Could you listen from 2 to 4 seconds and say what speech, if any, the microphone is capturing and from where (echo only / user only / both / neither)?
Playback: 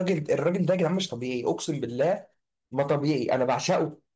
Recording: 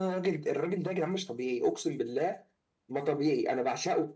echo only